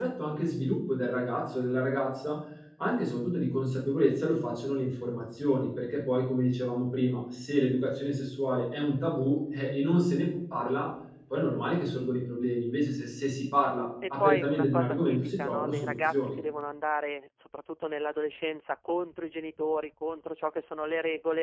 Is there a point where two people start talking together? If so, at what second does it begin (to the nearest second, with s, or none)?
14 s